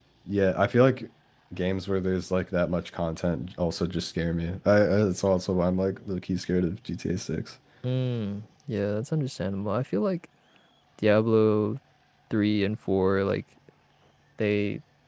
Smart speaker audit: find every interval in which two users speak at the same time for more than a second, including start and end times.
none

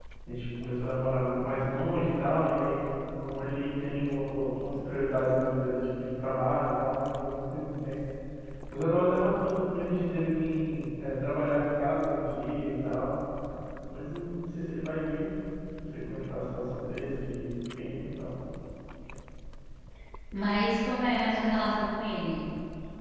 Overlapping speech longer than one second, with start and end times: none

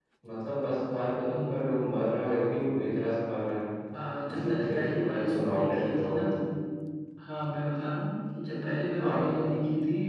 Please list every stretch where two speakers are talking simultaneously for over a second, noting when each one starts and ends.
4.3-6.3

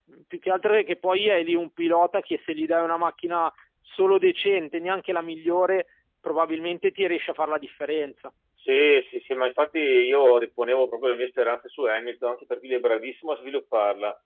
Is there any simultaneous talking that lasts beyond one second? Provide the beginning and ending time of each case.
none

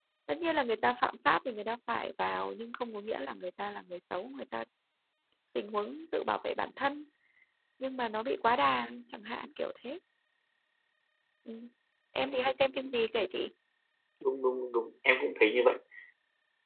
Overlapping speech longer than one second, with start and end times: none

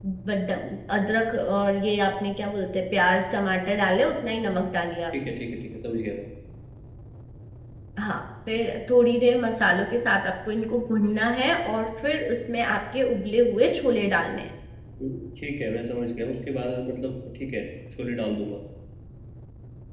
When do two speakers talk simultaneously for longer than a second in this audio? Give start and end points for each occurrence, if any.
none

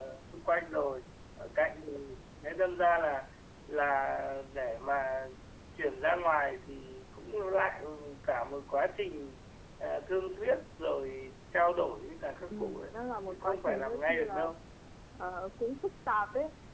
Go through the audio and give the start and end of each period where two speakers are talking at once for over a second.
13.3-14.5

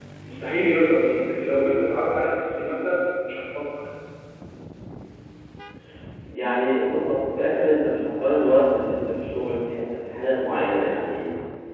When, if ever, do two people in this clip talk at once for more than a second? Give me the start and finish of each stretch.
none

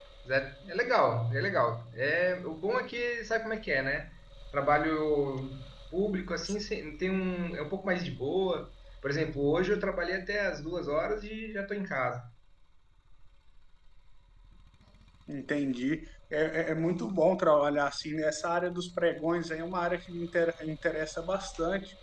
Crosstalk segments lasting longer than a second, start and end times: none

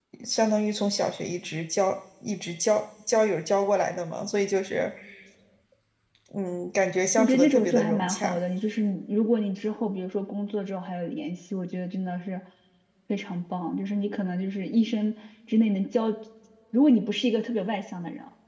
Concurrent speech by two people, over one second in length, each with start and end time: 7.2-8.4

